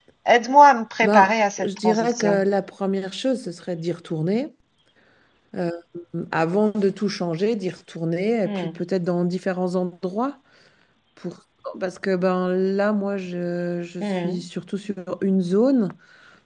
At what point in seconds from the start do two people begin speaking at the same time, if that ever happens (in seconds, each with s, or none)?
1.0 s